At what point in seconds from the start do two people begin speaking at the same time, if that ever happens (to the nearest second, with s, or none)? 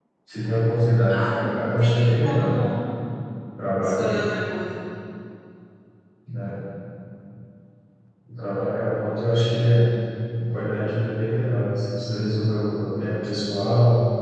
1 s